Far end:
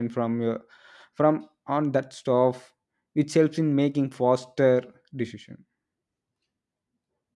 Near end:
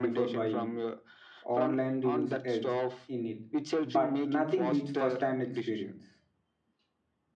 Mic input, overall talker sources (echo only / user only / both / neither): both